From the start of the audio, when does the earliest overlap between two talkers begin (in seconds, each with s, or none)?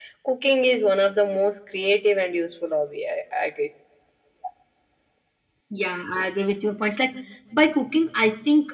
none